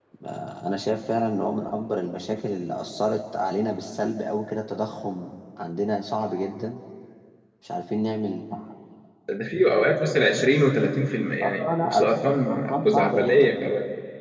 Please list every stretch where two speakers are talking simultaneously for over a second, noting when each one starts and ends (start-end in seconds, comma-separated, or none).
11.4-13.5